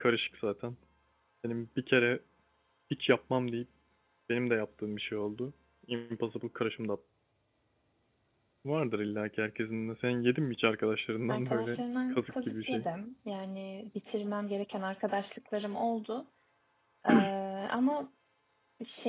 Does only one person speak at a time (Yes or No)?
No